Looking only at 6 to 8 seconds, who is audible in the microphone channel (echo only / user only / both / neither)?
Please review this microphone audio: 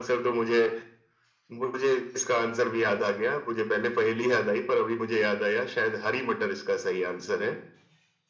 echo only